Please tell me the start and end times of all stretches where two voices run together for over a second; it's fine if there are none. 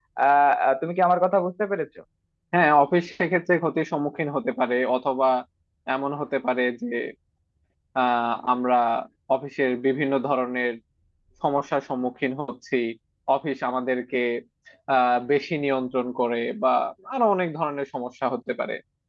none

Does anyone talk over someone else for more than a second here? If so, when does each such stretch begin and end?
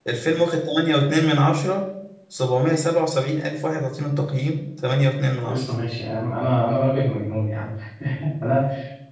none

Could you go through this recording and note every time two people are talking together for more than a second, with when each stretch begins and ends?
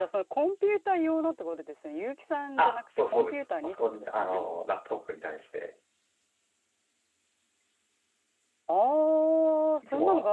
2.6-4.4

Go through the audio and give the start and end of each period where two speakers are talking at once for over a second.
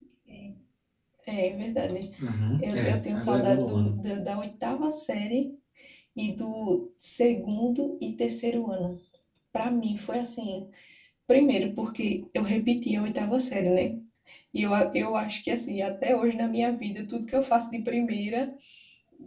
2.6-3.9

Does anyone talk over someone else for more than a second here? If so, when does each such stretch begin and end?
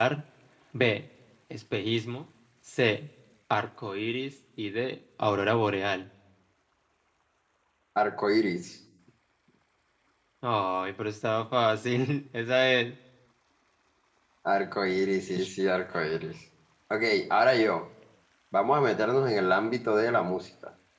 none

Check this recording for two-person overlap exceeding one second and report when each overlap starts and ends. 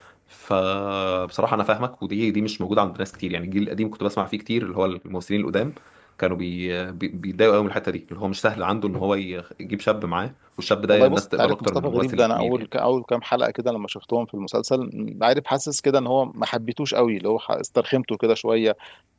10.9-12.7

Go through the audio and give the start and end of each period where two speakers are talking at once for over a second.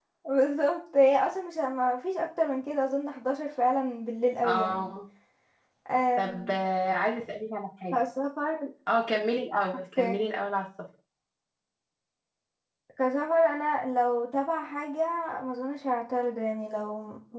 none

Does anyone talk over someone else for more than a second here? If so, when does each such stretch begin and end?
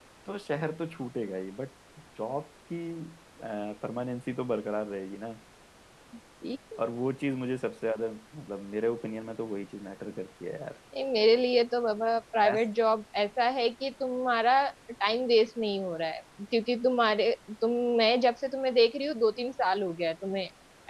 none

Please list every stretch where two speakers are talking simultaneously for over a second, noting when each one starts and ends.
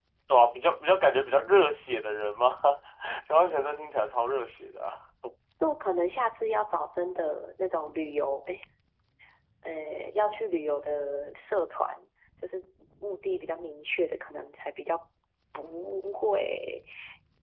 none

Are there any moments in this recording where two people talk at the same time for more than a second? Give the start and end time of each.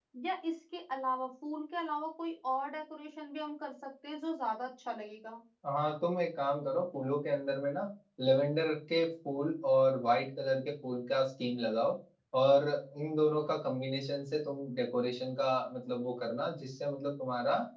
none

